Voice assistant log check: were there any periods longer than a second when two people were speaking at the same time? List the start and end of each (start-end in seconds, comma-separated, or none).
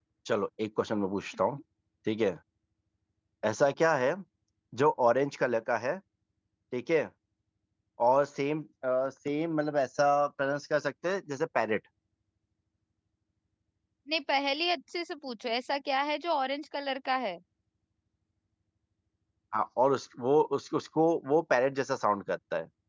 none